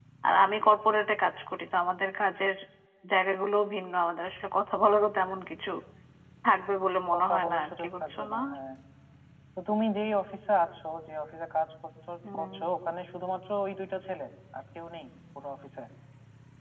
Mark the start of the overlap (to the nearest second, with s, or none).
7 s